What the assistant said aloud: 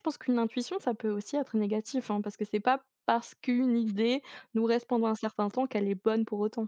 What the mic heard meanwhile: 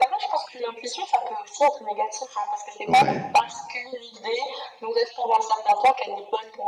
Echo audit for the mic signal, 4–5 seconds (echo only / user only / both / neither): echo only